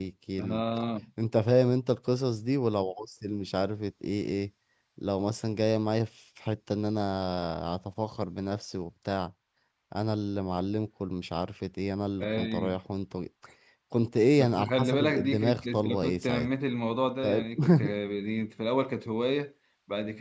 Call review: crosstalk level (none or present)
present